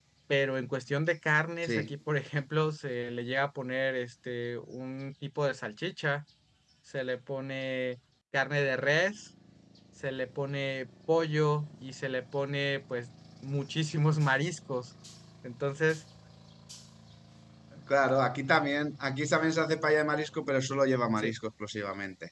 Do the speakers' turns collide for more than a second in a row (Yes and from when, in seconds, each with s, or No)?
No